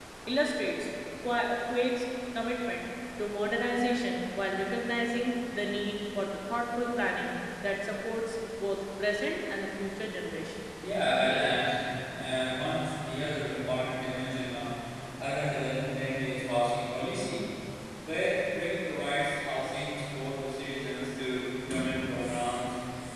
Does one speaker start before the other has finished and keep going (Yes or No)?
No